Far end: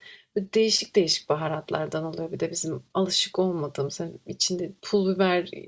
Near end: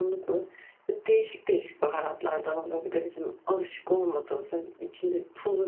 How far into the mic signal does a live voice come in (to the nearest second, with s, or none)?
none